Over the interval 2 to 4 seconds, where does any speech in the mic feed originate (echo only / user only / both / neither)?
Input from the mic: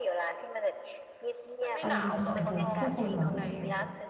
both